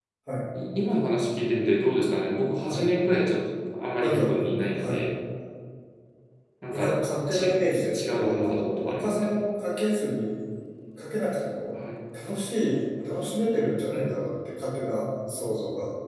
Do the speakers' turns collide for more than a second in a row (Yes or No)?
Yes